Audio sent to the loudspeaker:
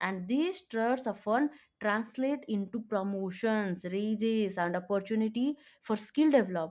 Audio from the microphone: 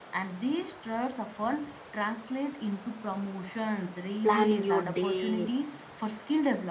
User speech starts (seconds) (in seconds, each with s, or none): 4.2 s